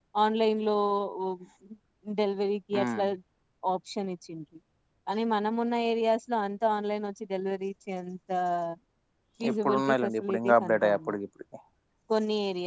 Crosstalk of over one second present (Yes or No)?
Yes